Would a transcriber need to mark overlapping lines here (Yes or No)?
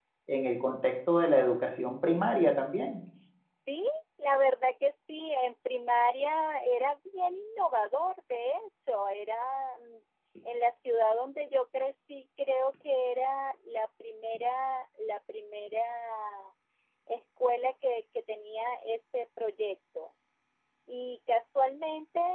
No